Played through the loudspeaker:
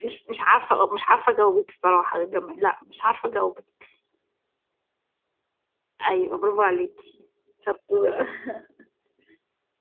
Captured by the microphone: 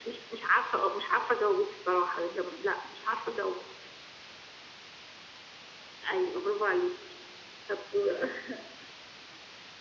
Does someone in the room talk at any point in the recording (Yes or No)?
No